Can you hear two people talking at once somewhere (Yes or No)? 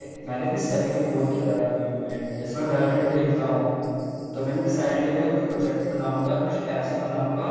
No